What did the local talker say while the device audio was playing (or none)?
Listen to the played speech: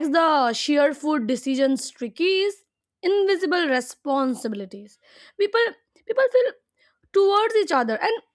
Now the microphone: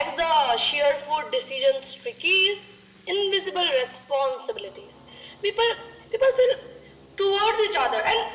none